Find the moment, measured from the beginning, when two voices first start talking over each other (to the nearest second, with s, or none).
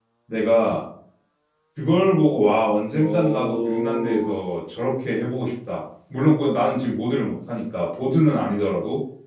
3 s